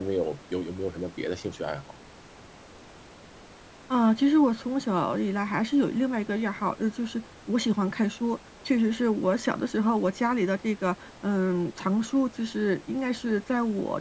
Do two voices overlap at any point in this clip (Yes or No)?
No